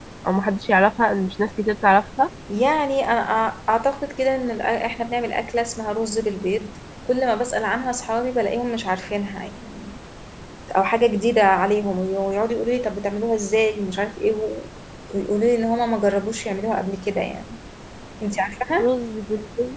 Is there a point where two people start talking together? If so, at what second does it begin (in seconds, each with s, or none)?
none